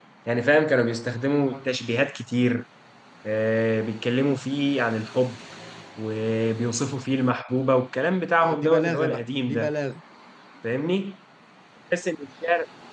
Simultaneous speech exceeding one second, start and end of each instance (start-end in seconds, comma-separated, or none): 8.4-9.7